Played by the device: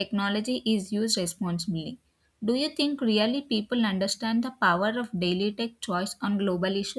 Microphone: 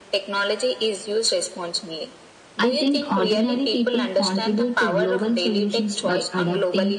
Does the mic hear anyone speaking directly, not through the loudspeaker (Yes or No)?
Yes